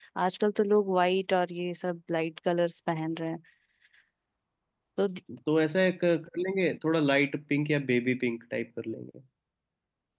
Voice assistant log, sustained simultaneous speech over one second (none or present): none